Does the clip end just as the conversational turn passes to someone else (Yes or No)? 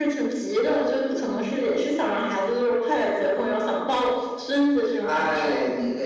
Yes